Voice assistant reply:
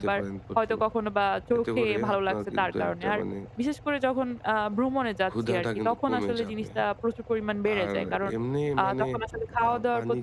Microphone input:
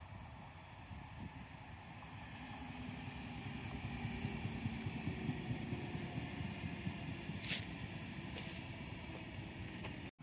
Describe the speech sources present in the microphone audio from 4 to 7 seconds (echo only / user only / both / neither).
neither